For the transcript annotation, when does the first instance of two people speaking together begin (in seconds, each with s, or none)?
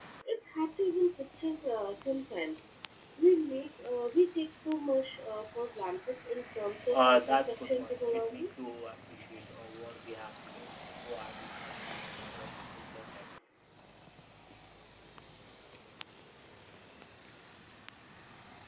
6.9 s